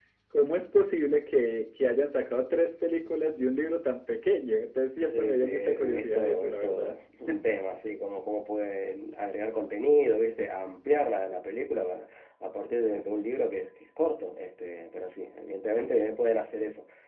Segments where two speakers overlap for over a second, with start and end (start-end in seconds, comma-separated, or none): 5.1-6.9